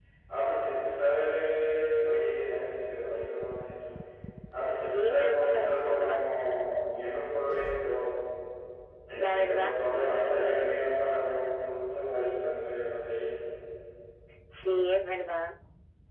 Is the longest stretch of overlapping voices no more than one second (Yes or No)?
No